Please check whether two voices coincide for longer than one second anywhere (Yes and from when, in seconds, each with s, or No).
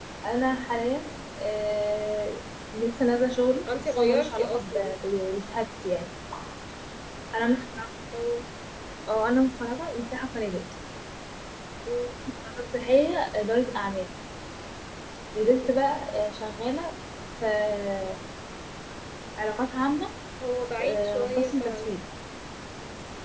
Yes, from 3.6 s